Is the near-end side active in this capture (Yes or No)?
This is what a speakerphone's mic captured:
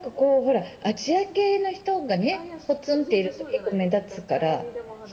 Yes